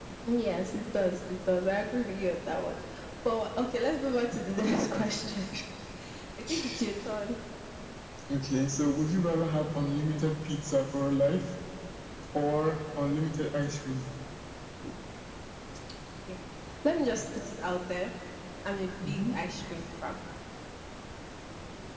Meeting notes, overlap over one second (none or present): none